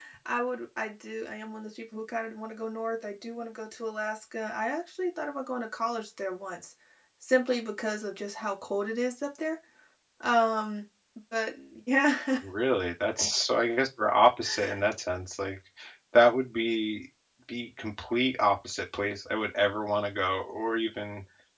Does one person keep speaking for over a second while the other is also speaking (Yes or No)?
No